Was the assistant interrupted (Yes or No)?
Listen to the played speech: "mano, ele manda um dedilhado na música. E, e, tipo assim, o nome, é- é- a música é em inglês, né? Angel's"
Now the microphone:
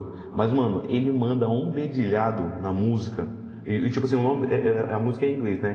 No